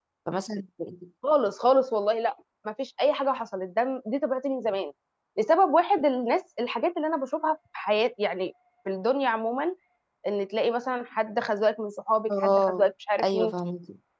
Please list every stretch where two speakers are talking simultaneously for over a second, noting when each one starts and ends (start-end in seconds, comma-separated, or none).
none